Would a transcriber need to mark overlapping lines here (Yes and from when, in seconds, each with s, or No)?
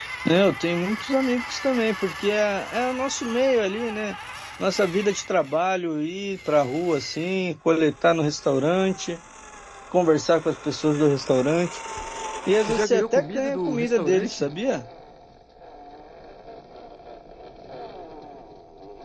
Yes, from 12.6 s